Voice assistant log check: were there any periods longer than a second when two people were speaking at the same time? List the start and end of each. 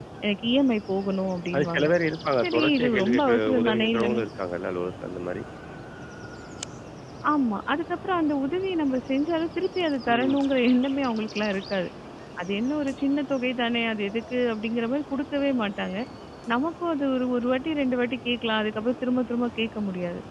2.4-4.2

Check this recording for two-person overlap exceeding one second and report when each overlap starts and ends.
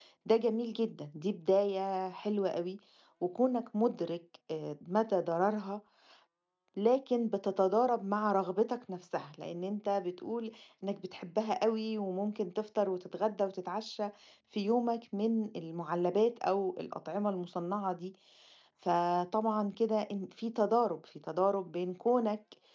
none

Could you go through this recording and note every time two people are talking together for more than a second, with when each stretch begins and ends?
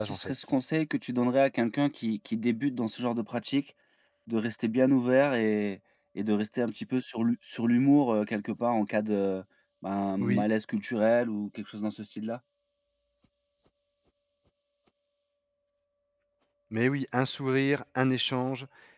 none

